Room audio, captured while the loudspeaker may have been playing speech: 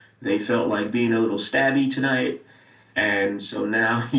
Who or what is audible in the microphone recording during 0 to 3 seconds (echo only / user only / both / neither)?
echo only